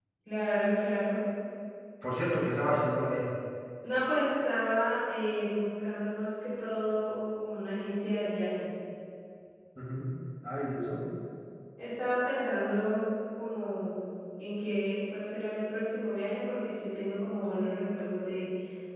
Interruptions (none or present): none